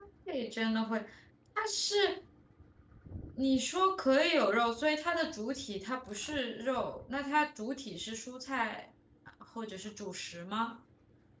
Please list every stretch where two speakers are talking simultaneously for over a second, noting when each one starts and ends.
none

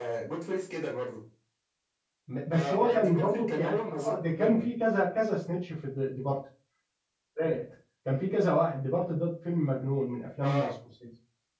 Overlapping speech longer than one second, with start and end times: 2.5-4.7

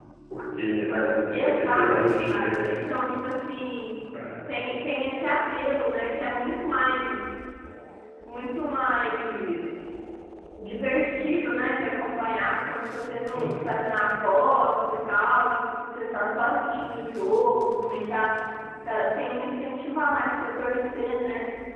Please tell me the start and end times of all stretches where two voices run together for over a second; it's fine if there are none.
1.3-2.6

